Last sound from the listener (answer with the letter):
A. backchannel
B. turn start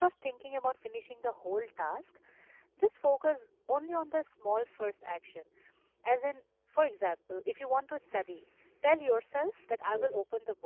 A